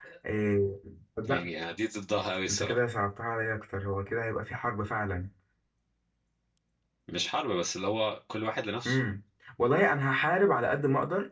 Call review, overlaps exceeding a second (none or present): none